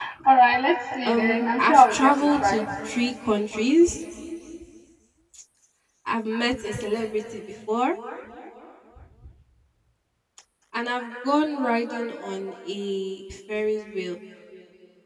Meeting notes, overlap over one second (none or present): present